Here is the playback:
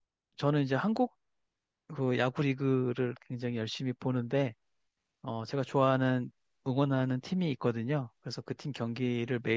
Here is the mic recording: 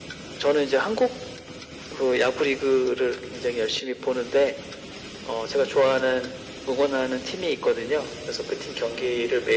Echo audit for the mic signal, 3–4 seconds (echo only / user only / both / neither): echo only